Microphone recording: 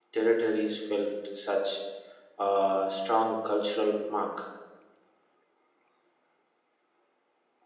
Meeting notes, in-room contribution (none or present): present